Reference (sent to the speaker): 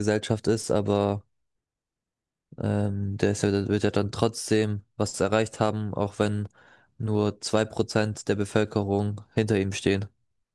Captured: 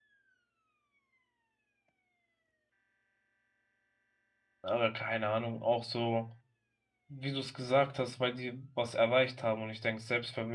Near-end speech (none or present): present